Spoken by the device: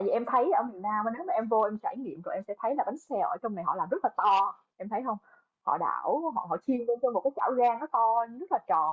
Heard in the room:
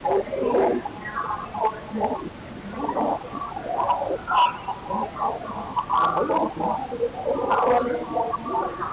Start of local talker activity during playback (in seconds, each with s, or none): none